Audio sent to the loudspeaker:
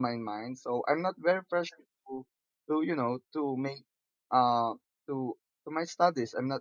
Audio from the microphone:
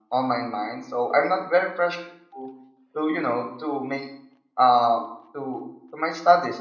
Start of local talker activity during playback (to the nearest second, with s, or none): none